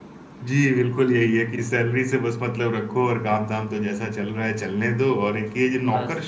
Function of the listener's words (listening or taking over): listening